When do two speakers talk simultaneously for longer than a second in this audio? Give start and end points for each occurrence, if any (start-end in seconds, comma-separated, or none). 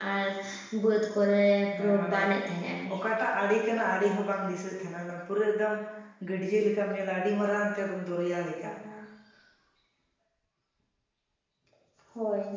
none